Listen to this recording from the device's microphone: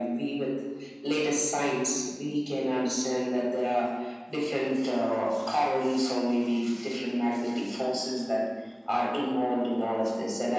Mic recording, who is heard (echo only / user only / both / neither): echo only